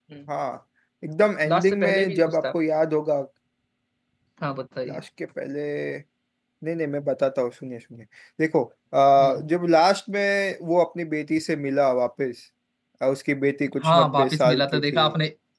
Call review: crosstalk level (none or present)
present